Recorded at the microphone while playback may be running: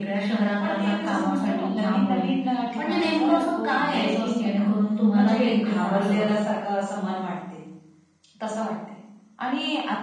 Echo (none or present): present